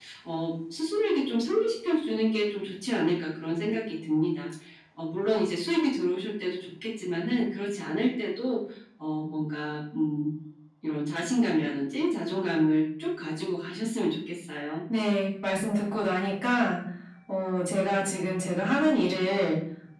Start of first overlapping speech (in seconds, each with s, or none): none